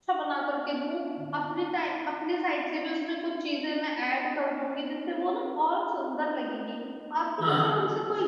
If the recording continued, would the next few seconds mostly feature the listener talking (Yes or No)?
No